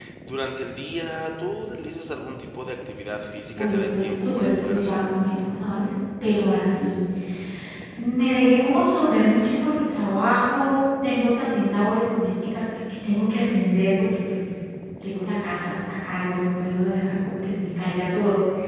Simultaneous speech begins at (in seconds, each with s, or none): 3.6 s